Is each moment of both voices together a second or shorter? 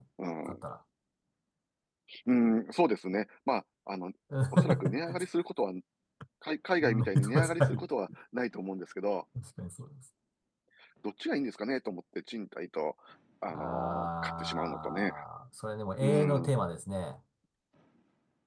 No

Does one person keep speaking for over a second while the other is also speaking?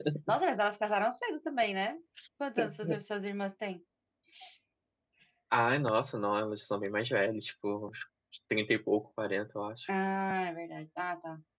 No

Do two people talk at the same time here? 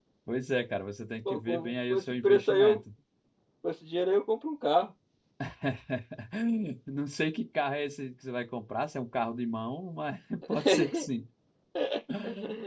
Yes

